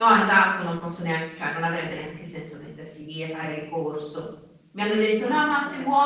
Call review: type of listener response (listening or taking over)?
listening